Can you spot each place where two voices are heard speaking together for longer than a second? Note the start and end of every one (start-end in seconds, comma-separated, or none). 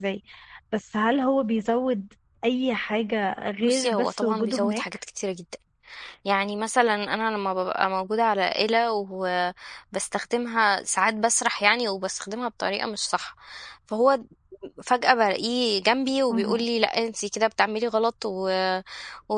3.6-4.8